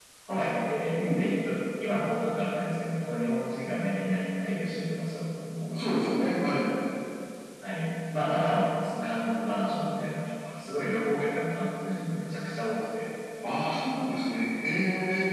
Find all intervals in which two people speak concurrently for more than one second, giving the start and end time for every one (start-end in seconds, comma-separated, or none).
none